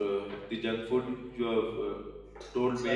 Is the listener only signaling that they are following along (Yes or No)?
Yes